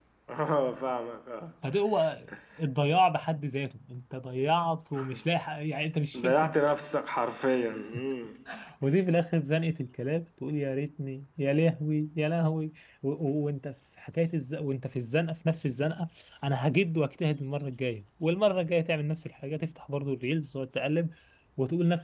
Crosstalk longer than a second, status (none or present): none